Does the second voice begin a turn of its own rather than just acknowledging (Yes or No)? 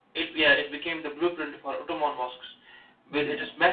No